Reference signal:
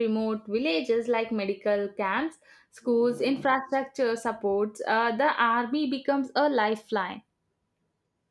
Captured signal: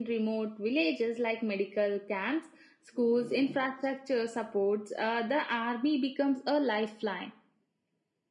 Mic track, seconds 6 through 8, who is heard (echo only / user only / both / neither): echo only